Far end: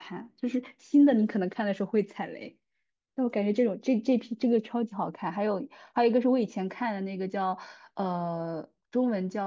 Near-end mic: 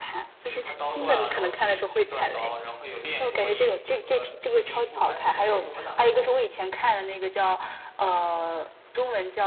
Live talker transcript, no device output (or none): 就是他刀断了，然后去去断刀，然后有炼柱和阴和和阴柱吧？哎，不是炼柱和哪个柱？